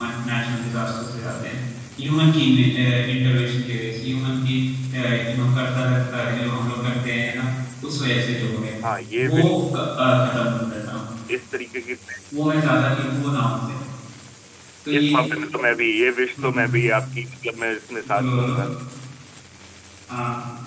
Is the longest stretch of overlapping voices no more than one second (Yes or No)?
Yes